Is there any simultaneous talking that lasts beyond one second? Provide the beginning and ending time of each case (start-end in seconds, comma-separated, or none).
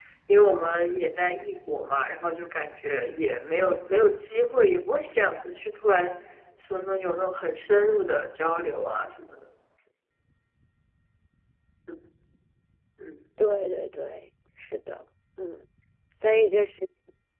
none